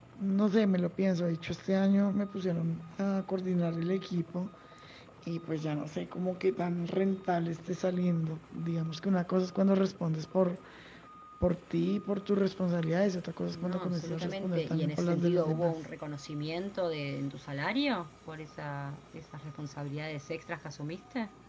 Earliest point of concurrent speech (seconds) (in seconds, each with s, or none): 13.5 s